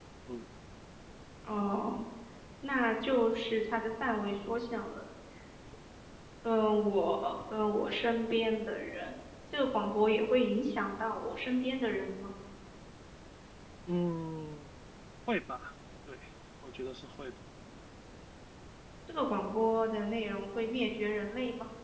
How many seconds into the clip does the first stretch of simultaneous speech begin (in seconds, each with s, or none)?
none